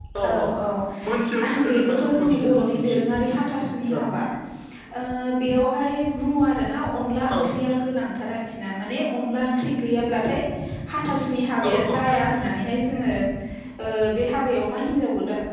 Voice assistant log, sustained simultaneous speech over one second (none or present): present